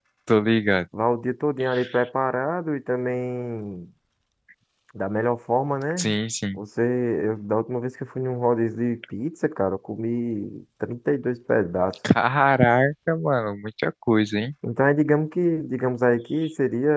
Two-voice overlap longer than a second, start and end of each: none

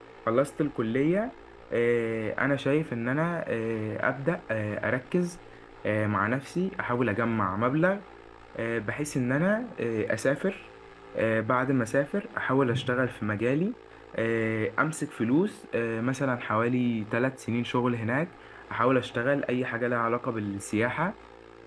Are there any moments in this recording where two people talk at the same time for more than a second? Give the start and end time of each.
none

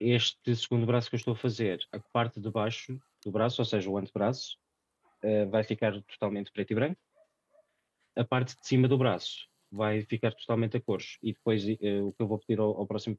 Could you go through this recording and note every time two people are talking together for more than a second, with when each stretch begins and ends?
none

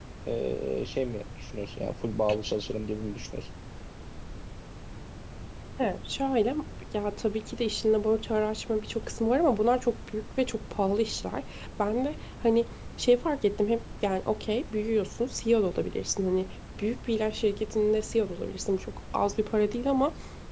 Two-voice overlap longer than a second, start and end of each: none

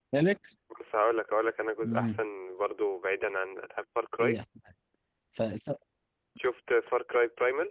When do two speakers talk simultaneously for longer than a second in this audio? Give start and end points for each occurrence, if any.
none

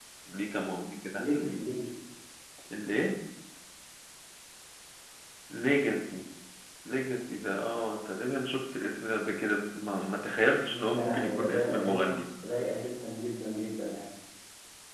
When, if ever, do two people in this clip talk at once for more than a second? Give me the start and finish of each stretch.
10.9-12.2

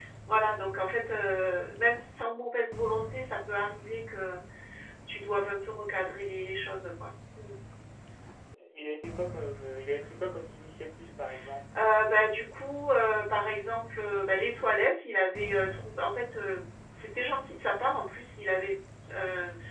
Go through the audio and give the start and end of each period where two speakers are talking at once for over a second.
none

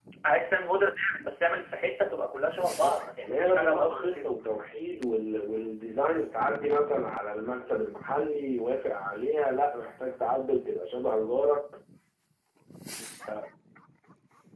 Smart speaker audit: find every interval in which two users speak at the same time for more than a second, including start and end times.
2.5-4.3

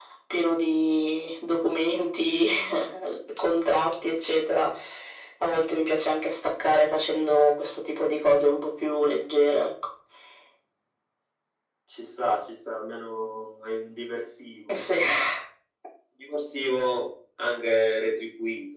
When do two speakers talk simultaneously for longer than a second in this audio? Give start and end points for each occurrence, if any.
none

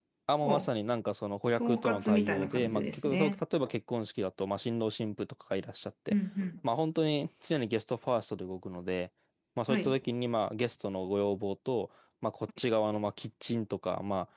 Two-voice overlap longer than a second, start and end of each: 1.6-3.4

